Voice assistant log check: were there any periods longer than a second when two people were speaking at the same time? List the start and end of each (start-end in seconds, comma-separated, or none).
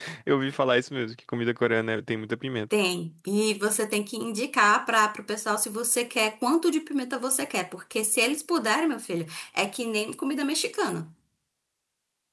none